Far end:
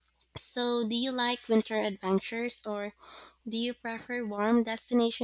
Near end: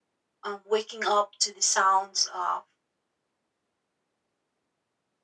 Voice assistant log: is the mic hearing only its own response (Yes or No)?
No